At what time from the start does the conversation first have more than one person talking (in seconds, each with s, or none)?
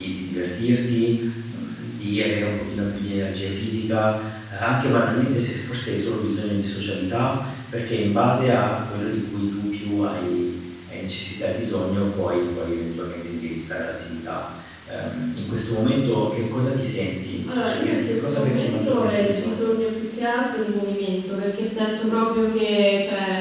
17.4 s